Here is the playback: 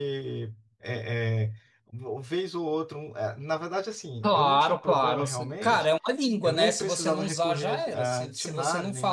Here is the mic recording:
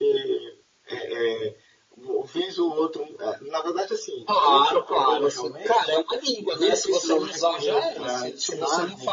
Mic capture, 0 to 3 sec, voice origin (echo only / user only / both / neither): echo only